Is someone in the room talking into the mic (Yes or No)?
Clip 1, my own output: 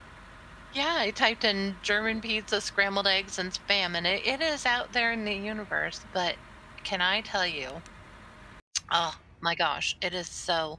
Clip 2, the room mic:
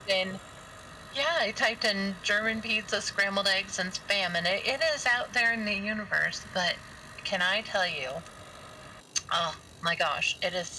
No